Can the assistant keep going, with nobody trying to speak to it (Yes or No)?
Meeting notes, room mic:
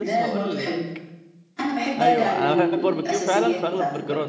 No